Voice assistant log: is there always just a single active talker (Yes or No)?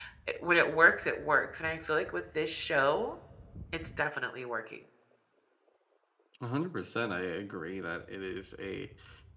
Yes